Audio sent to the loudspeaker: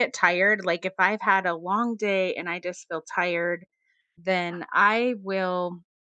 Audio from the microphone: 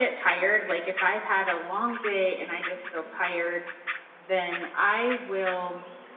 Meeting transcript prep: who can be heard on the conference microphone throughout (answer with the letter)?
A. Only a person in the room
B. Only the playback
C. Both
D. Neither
B